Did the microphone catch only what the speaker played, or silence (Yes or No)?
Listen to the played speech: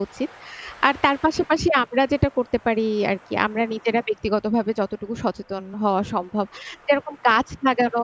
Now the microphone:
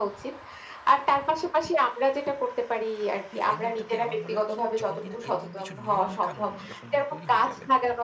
No